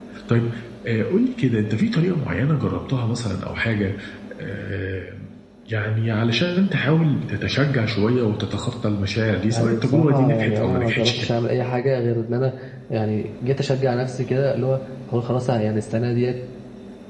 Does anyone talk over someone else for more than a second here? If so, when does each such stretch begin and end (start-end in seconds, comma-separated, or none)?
9.5-11.3